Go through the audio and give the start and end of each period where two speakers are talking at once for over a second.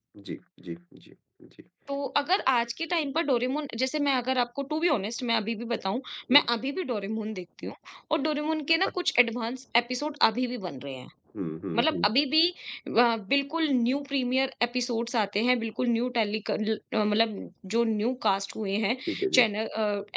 none

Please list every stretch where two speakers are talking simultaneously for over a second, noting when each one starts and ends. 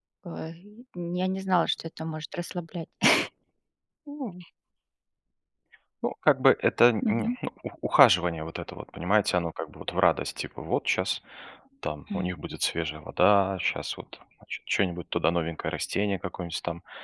none

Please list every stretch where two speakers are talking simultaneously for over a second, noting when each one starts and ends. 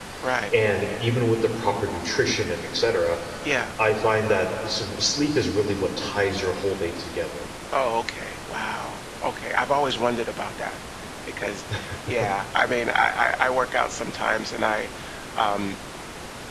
none

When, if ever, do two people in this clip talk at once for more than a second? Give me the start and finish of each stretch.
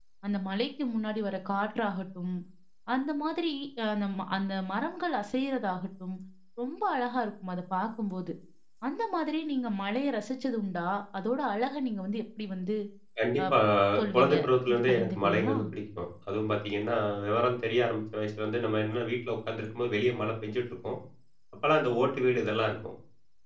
14.1-15.6

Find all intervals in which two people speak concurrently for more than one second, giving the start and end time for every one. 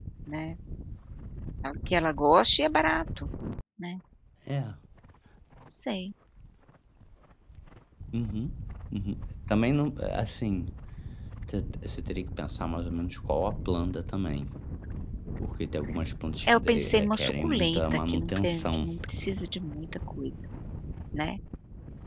16.5-18.9

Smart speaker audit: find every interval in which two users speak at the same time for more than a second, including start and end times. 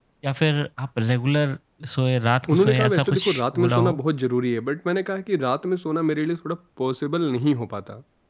2.5-4.0

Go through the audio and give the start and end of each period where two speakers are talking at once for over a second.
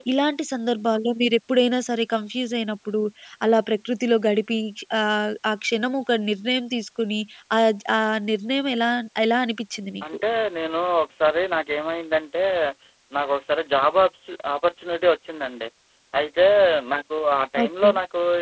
none

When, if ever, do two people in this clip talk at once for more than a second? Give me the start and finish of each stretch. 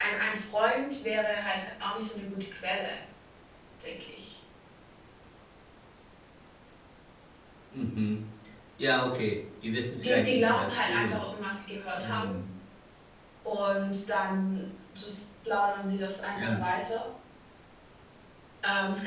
10.0-11.2

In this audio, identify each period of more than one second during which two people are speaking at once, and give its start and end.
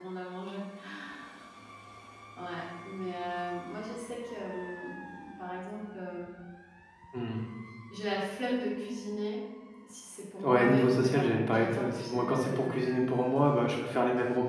10.4-12.8

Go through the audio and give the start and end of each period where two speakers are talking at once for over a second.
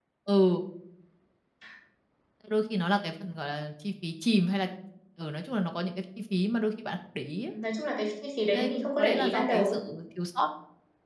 8.5-9.8

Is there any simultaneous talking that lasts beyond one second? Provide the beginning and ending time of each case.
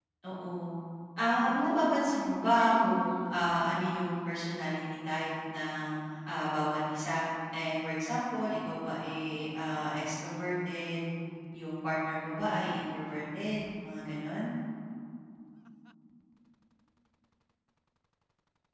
1.4-3.1

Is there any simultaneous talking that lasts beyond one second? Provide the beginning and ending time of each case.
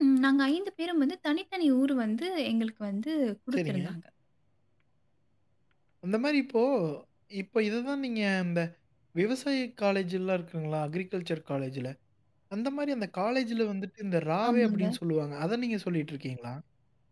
none

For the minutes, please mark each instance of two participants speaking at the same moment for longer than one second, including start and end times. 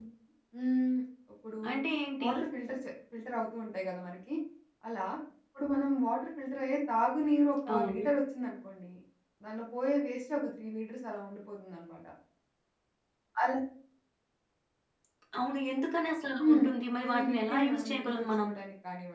17.1-18.5

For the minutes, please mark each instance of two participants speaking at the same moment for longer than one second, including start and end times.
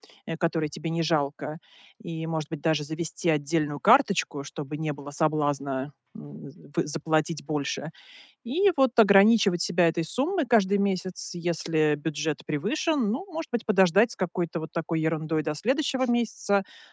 none

